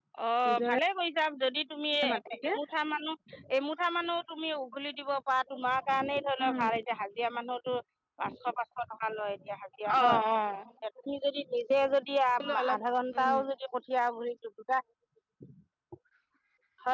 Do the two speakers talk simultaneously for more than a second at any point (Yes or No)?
No